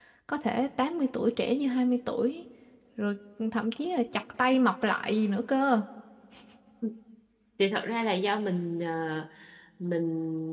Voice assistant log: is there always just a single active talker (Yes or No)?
Yes